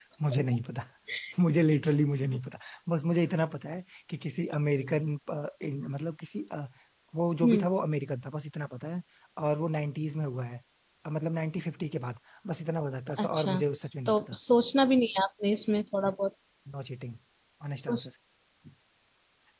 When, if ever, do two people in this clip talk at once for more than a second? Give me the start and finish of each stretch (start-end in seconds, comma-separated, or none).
none